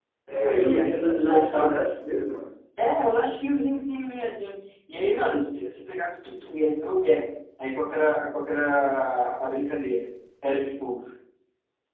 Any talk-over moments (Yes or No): Yes